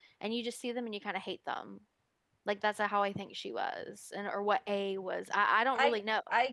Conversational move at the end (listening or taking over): taking over